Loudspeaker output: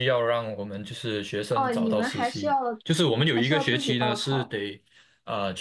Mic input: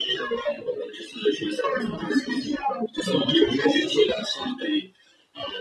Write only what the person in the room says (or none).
none